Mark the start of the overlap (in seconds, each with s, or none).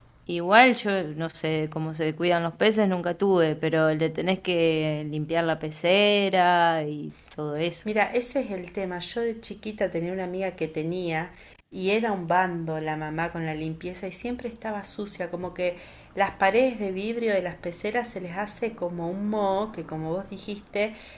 none